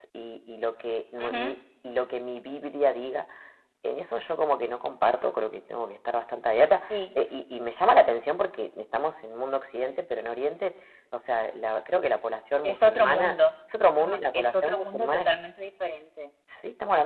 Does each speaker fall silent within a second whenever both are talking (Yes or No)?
No